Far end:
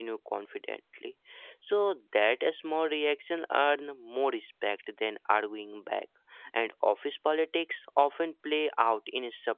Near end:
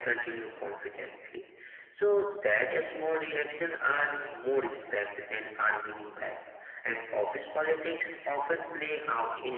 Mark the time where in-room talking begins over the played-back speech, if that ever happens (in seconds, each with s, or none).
none